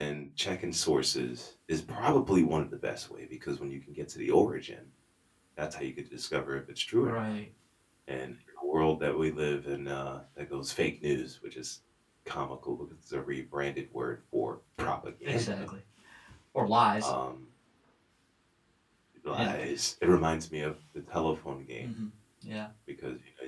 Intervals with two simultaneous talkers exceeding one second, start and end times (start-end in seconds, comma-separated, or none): none